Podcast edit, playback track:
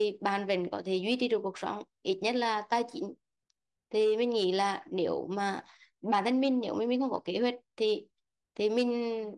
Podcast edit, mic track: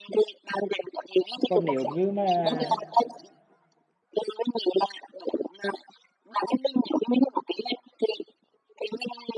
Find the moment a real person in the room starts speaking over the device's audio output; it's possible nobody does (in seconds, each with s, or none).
1.4 s